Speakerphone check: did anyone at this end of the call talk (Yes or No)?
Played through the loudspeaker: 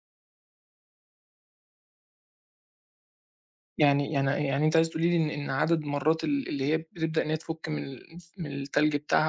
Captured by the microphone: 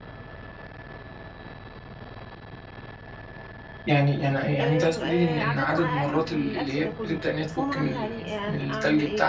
Yes